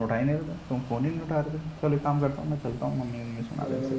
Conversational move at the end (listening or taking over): taking over